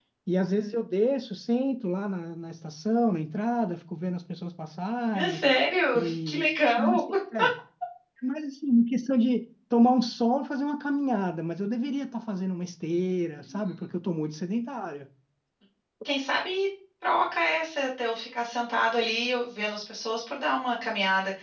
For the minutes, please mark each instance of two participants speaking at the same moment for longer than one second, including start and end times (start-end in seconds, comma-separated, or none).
none